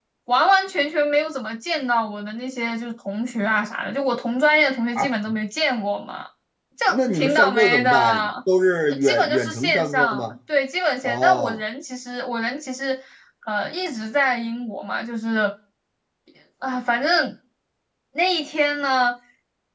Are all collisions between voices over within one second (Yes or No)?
No